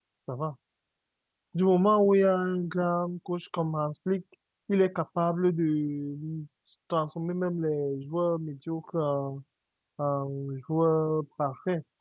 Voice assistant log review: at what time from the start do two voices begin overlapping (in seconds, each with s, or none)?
none